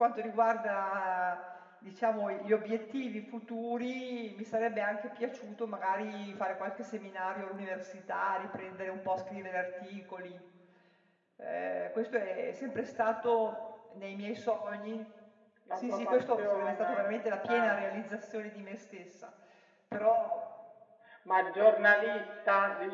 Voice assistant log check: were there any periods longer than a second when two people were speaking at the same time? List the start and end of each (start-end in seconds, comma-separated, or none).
15.7-17.1